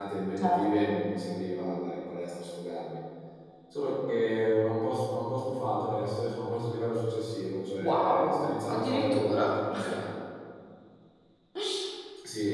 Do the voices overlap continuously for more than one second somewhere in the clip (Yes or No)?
Yes